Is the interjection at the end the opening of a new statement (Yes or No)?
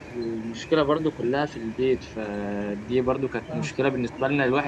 No